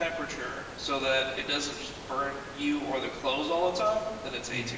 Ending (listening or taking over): taking over